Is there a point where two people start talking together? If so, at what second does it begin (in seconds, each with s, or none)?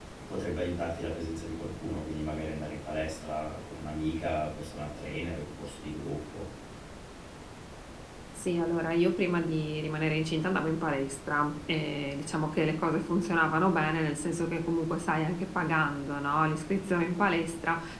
none